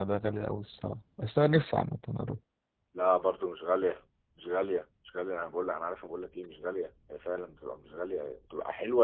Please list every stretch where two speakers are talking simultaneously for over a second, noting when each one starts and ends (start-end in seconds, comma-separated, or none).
none